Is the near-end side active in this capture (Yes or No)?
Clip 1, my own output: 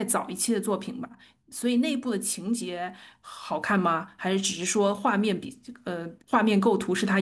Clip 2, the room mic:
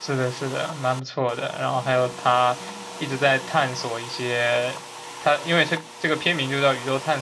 Yes